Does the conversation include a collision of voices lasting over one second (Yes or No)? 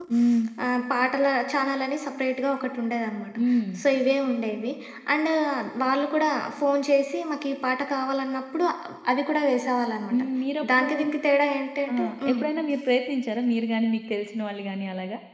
No